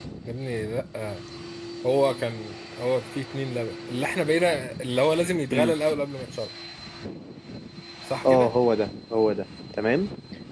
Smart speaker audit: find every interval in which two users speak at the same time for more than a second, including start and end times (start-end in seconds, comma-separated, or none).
none